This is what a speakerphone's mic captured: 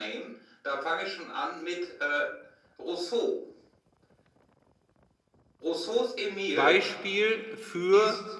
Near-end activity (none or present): present